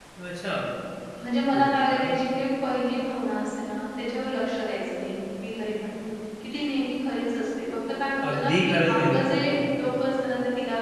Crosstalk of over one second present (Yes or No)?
Yes